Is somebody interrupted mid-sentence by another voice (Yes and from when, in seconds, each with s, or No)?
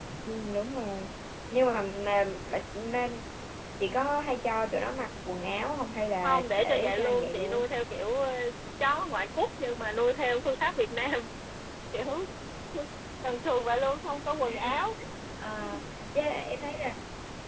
Yes, from 6.2 s